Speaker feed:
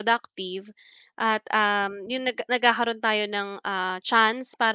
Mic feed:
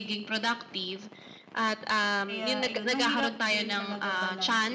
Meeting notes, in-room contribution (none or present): present